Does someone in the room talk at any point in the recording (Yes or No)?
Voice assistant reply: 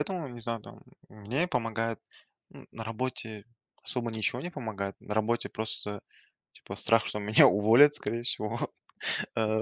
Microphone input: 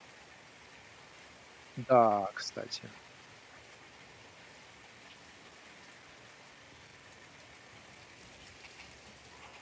Yes